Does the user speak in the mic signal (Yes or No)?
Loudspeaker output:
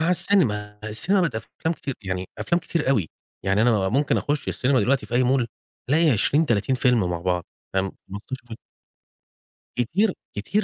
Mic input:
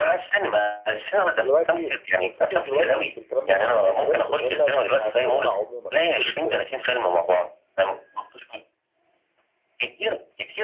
Yes